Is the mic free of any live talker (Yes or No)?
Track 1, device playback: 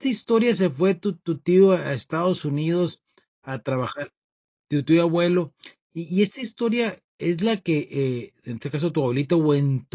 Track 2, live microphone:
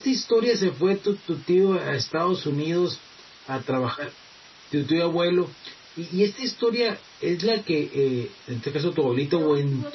No